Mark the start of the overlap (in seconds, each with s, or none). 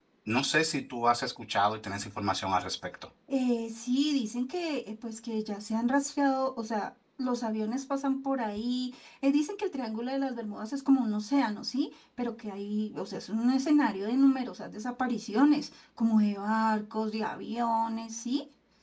none